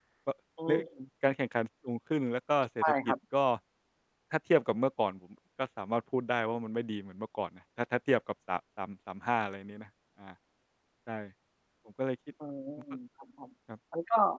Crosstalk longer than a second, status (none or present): none